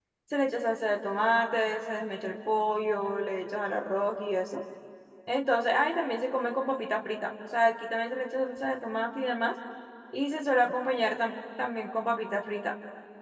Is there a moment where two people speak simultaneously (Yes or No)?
No